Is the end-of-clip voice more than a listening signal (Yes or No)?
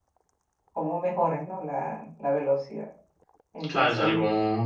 Yes